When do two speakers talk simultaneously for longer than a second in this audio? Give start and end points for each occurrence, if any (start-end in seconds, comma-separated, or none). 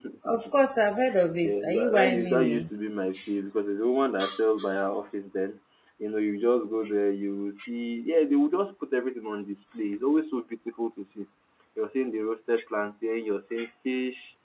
1.4-2.7